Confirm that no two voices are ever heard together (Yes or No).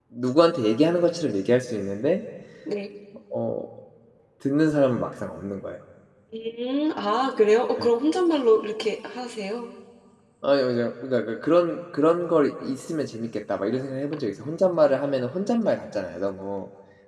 Yes